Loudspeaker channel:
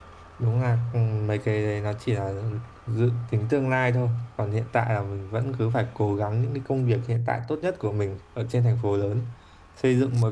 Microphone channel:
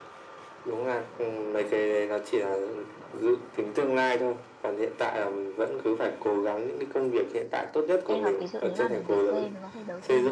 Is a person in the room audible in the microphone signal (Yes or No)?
Yes